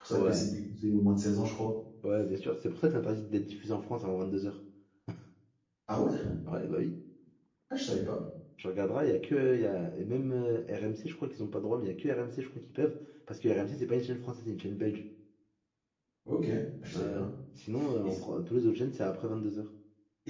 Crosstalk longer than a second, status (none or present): none